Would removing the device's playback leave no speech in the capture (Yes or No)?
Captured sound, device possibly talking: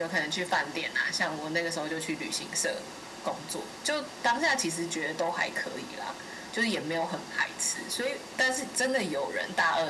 Yes